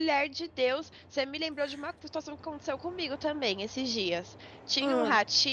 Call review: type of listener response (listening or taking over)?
listening